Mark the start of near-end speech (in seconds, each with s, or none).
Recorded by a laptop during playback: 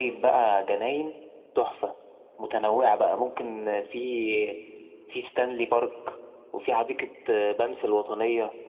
none